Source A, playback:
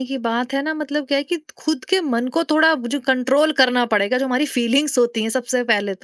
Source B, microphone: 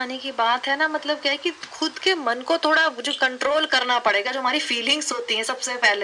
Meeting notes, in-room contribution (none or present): none